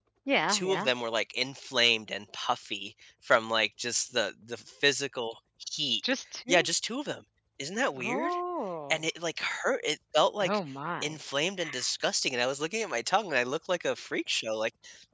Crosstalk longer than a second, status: none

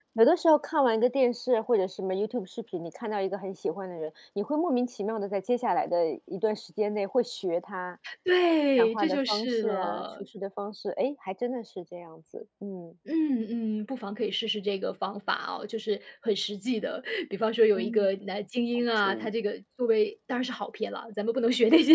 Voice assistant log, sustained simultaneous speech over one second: present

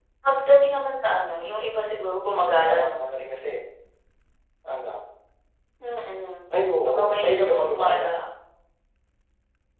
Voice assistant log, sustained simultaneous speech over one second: present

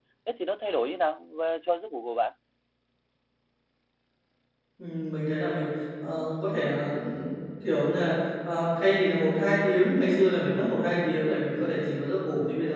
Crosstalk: none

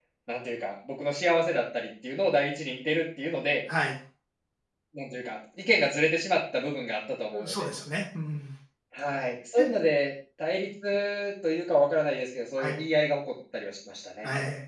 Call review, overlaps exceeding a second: none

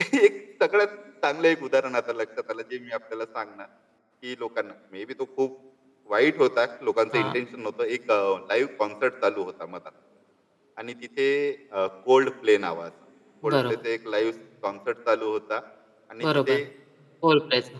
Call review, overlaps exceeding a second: none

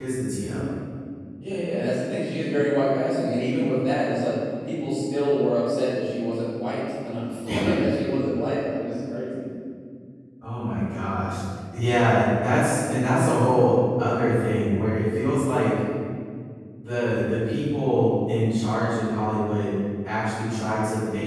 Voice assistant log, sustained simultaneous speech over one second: none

